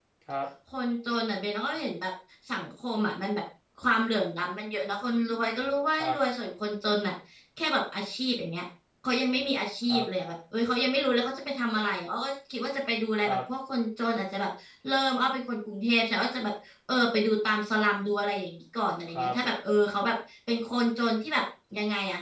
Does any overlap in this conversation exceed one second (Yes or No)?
No